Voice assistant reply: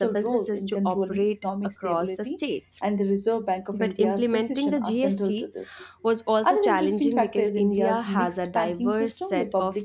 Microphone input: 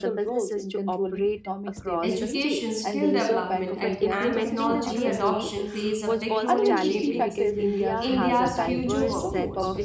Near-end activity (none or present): present